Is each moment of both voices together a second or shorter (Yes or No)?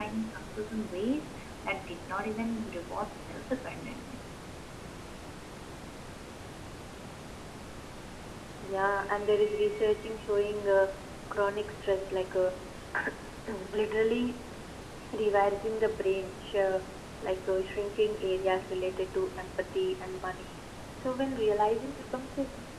Yes